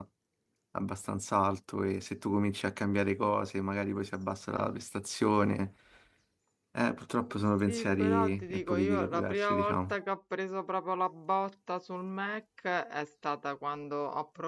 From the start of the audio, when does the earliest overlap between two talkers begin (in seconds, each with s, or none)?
7.7 s